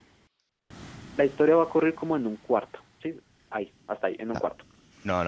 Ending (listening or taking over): taking over